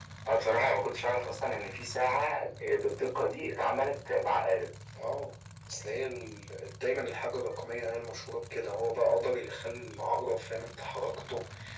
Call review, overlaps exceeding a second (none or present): none